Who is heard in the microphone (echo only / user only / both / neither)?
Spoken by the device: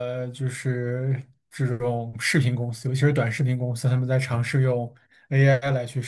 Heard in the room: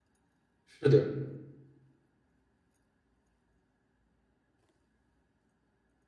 user only